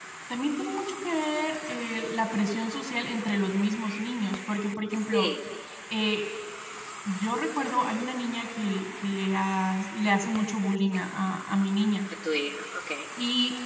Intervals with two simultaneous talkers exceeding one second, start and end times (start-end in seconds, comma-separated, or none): none